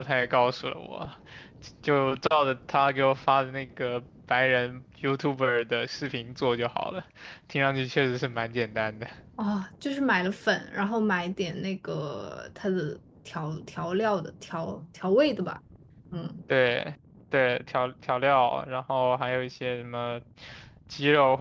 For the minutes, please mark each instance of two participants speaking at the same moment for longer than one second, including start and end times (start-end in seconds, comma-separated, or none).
none